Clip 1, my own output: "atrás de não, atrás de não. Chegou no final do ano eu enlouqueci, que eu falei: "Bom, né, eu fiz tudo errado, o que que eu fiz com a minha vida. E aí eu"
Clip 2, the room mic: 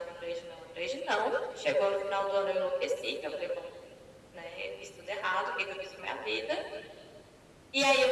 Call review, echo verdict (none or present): present